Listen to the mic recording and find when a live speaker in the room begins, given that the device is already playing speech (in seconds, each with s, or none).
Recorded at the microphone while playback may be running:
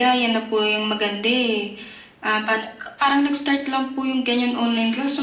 none